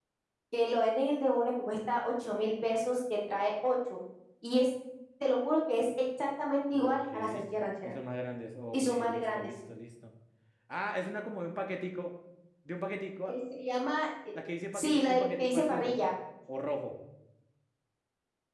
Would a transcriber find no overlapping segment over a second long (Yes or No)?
No